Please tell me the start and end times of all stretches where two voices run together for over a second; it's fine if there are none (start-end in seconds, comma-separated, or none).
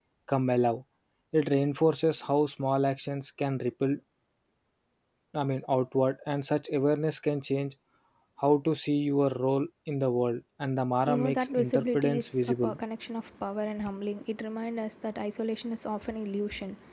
11.0-12.7